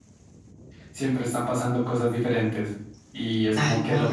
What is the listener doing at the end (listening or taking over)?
listening